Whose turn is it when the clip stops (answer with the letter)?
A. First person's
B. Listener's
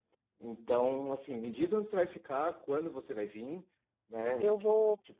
A